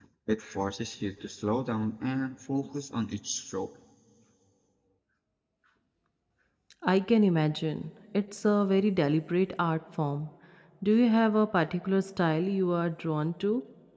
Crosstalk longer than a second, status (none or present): none